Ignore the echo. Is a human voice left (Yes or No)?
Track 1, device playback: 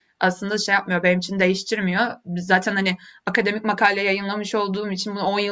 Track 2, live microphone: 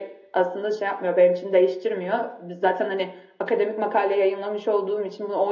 No